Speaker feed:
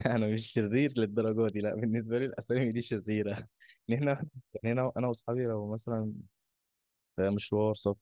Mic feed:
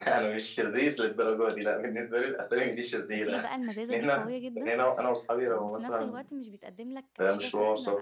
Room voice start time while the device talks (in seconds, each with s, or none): 3.1 s